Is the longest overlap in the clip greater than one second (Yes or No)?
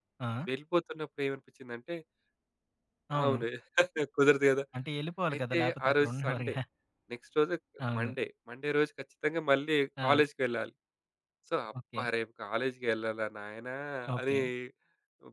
Yes